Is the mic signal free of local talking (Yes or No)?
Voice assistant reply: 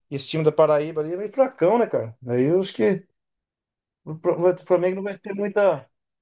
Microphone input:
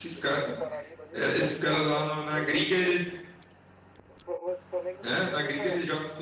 No